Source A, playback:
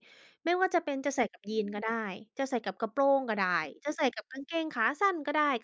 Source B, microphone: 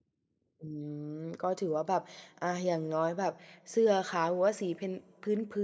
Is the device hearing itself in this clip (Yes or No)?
No